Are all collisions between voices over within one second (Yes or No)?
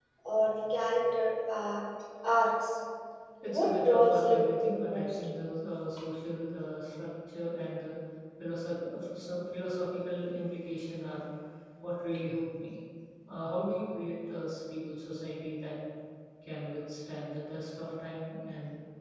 No